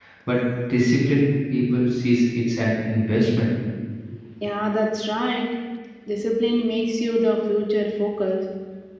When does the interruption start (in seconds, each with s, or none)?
none